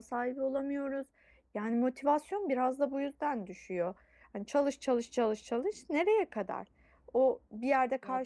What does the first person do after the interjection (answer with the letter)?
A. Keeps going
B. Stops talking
A